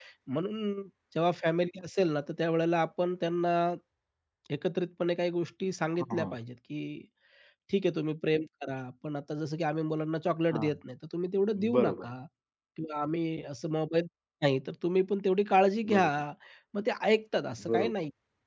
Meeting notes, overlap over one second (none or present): none